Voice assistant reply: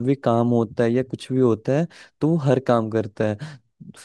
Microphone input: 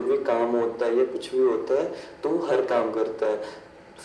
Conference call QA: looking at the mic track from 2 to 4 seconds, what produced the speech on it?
echo only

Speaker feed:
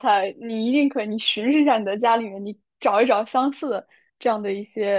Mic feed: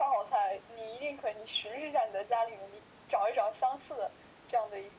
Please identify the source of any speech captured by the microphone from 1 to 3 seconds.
echo only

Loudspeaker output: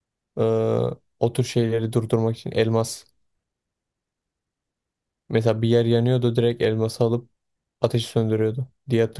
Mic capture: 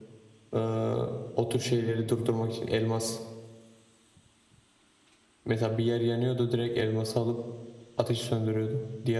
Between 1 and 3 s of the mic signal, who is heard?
echo only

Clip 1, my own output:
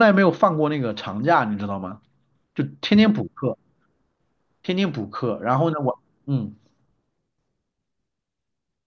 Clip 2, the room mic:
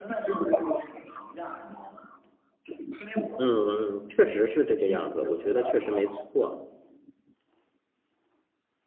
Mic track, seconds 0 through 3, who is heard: echo only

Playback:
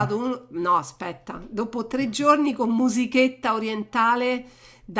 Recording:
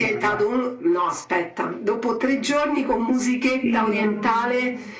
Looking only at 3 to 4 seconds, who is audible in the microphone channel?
both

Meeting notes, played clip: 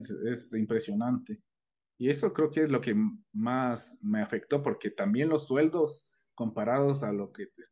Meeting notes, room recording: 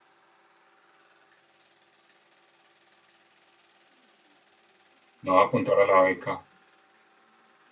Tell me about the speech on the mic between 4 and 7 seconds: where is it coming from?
user only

